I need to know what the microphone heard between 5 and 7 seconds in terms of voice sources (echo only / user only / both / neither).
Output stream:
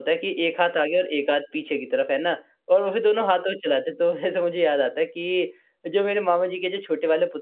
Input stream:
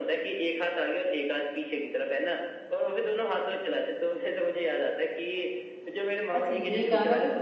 both